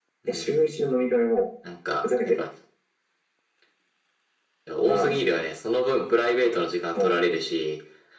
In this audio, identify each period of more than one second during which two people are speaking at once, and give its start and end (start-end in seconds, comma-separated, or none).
none